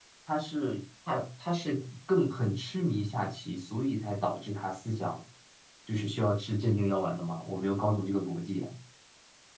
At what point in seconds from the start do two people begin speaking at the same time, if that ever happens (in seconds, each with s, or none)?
none